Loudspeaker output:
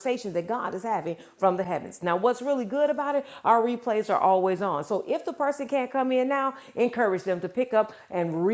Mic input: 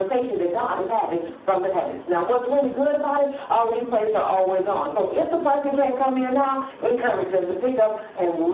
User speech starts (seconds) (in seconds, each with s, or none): none